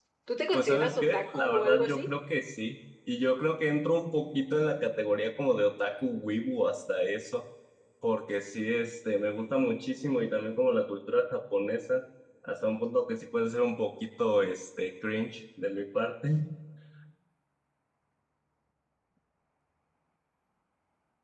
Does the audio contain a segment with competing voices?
Yes, from 0.6 s

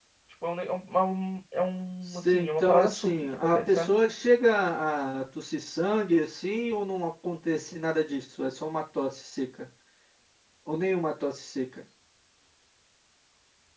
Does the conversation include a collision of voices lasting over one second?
Yes, from 2.0 s

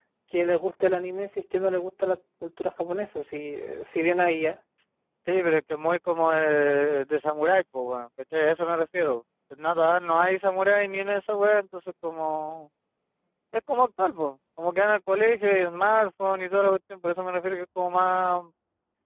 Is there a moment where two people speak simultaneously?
No

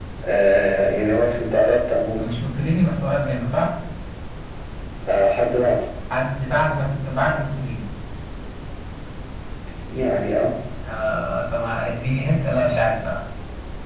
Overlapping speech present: No

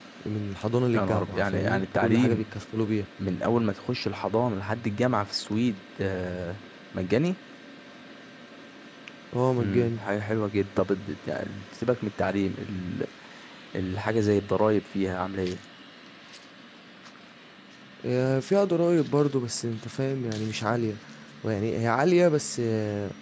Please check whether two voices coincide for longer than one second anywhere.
Yes, from 1.0 s

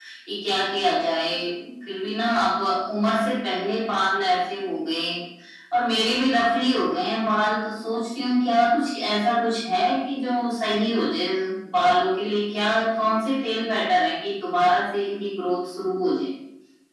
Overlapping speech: No

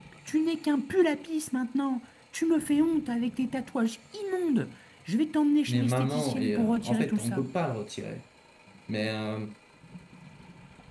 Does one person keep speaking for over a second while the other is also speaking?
Yes, from 5.7 s

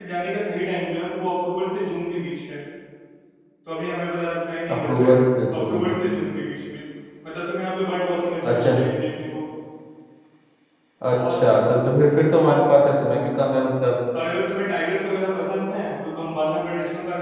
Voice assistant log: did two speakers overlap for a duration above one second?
No

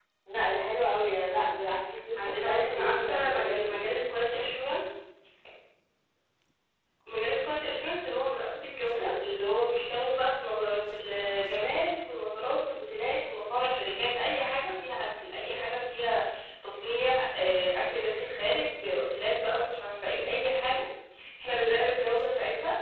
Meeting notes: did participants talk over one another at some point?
Yes, from 2.2 s

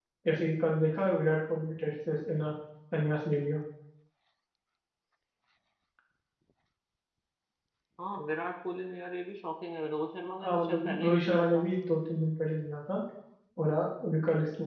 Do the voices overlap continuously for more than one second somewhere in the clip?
Yes, from 10.4 s

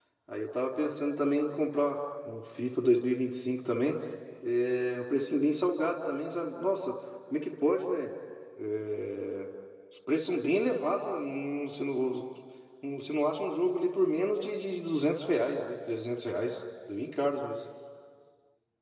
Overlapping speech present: No

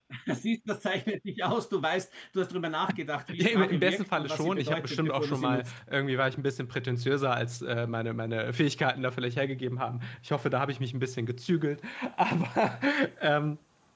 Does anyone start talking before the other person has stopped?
Yes, from 3.4 s

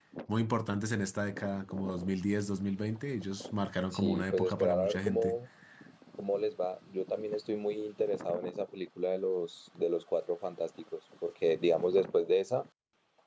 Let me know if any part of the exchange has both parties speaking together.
Yes, from 3.9 s

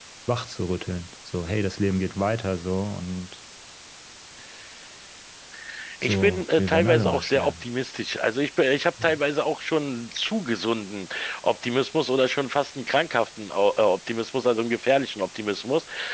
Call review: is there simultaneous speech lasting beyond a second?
Yes, from 6.0 s

